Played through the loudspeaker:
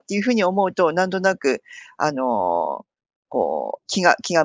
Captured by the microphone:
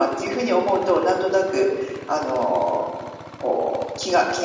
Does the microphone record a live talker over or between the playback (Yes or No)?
No